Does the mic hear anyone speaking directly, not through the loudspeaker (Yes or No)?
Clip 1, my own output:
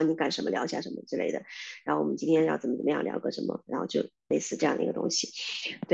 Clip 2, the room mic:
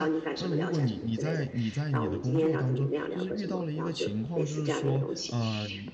Yes